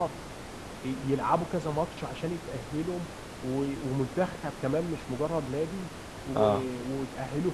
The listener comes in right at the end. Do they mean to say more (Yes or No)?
No